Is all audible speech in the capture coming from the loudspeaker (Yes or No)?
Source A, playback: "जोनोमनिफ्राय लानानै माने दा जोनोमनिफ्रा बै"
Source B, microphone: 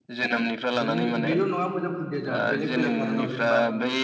No